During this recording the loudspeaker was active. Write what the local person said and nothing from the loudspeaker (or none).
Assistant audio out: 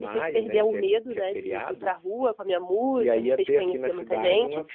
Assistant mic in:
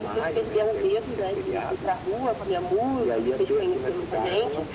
none